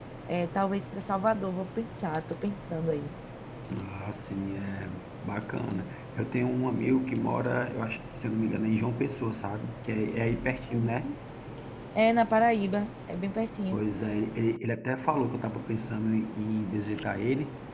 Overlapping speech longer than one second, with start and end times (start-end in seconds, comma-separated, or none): none